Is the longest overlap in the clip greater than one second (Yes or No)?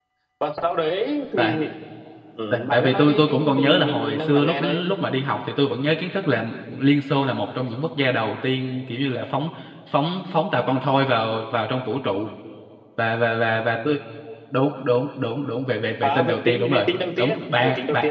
Yes